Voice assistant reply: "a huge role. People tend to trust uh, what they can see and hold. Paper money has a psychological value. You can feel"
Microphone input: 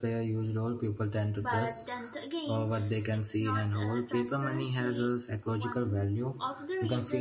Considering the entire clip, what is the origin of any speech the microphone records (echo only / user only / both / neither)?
both